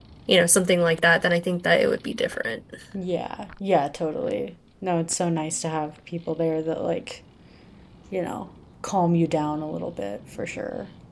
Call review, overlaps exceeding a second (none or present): none